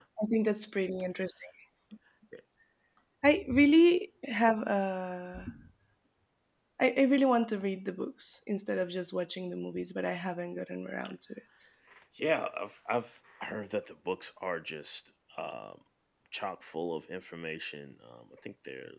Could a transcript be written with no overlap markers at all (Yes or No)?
Yes